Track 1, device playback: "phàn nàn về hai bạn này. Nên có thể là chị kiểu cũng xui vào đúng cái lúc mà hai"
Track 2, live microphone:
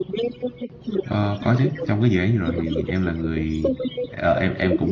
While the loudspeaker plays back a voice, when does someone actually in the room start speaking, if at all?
1.1 s

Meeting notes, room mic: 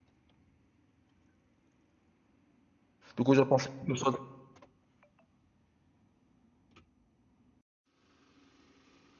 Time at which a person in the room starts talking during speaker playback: 3.2 s

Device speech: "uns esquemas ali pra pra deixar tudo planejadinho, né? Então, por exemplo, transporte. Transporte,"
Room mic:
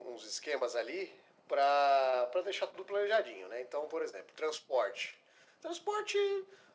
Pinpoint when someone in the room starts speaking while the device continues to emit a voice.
none

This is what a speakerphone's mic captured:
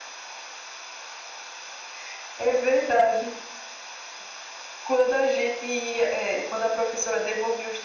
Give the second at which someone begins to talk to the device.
none

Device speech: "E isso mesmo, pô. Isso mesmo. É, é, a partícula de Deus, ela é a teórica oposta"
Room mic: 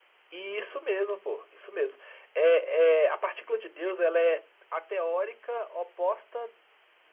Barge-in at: none

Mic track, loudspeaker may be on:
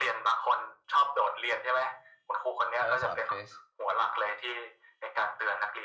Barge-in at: 2.7 s

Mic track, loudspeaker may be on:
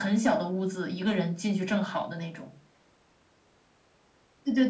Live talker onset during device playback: none

